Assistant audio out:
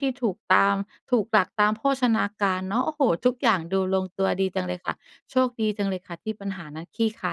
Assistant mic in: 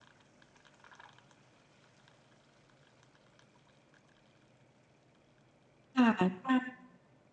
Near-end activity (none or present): present